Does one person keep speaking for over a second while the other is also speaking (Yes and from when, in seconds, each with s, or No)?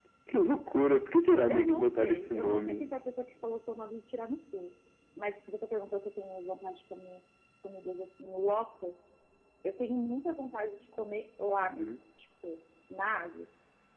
Yes, from 1.5 s